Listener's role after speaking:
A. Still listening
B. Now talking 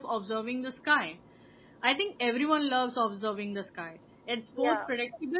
A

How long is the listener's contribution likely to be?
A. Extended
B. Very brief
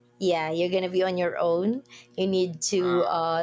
B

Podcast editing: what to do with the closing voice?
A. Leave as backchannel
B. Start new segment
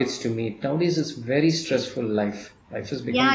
B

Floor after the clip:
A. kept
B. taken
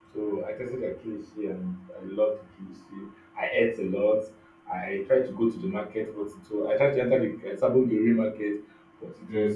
A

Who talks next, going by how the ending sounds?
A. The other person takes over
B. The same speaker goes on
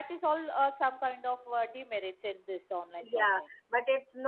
A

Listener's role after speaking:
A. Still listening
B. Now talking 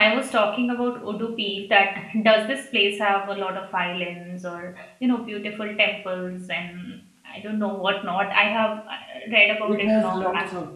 B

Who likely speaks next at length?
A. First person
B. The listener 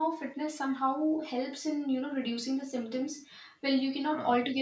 A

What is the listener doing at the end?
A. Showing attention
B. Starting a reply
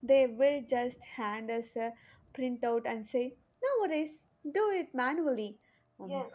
B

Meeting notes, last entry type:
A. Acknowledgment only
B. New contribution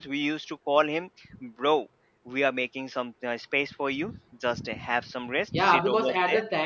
B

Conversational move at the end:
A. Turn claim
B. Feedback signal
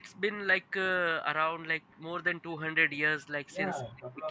A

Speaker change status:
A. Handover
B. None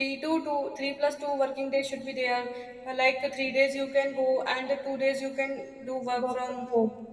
A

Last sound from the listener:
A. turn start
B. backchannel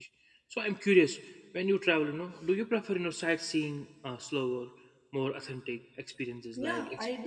A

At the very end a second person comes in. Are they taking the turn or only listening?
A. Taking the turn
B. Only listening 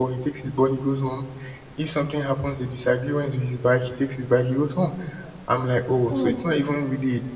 B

